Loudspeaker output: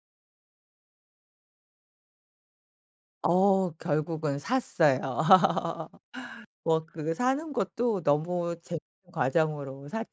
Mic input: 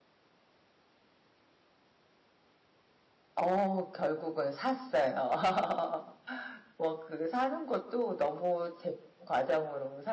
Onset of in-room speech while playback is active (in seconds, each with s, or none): none